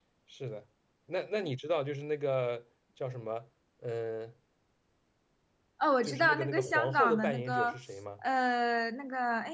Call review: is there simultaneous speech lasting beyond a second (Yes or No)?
Yes